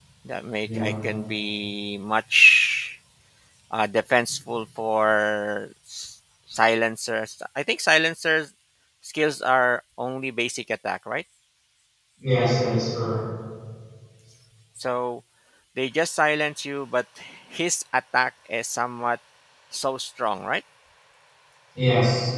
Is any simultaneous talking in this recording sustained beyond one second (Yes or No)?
No